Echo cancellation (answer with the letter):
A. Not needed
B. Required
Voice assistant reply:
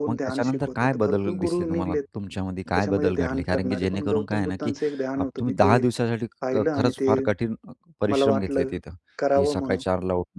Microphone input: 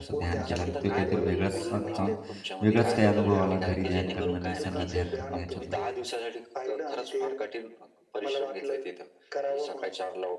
B